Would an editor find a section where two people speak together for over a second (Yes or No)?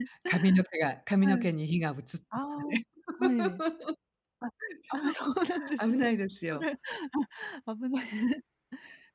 No